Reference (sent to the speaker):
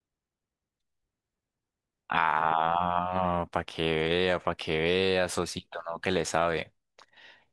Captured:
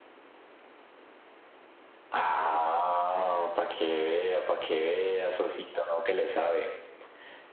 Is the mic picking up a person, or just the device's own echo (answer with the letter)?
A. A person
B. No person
B